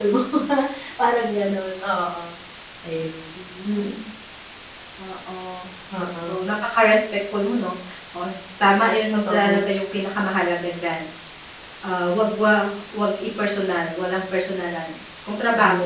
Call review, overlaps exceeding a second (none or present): none